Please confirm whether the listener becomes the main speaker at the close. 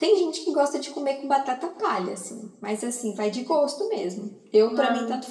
No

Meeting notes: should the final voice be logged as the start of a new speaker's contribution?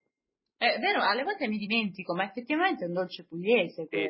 Yes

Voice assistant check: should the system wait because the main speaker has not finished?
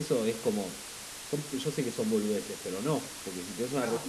Yes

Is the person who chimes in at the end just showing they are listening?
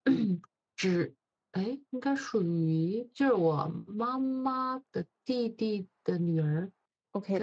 No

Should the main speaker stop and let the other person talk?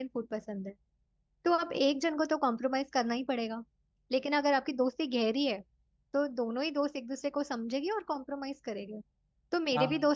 No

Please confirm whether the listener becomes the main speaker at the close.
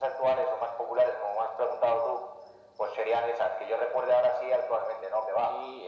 Yes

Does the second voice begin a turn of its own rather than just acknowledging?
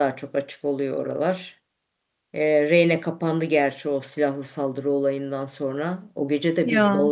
No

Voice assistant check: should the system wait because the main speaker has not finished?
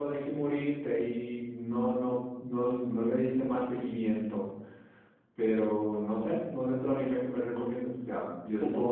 Yes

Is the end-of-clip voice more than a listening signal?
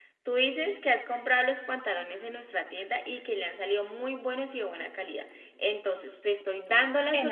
Yes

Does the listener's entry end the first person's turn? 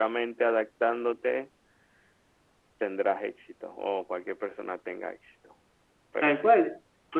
Yes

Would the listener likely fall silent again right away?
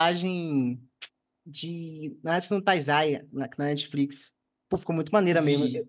Yes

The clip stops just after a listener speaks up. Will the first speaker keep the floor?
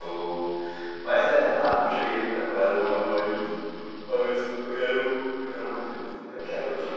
No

